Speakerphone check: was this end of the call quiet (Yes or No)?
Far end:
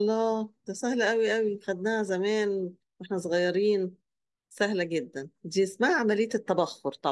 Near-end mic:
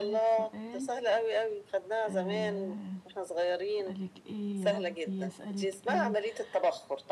No